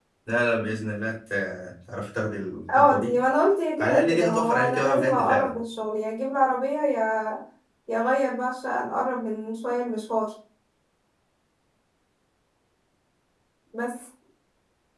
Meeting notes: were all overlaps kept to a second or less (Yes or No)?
No